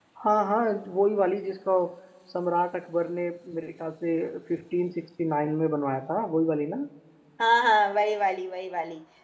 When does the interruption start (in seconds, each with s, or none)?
none